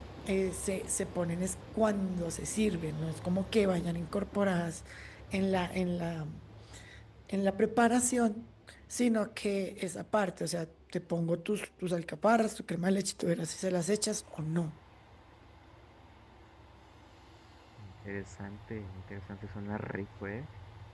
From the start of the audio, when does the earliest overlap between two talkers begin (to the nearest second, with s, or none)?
none